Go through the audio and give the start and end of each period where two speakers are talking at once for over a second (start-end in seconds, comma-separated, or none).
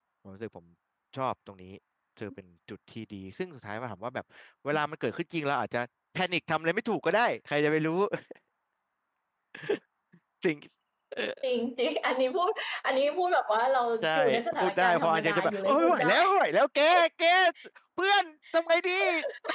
14.6-16.1